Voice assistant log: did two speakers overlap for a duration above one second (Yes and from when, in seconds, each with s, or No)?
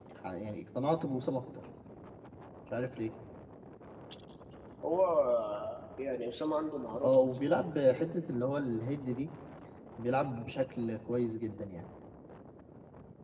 No